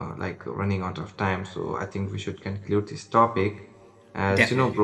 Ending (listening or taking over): listening